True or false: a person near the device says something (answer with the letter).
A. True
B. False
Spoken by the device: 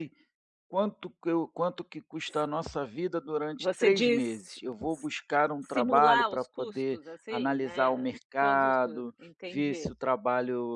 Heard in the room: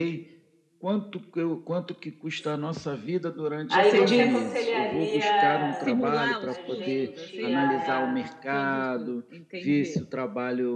A